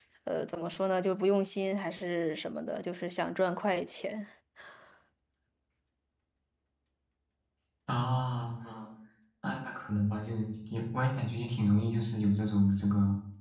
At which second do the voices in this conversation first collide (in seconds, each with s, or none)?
none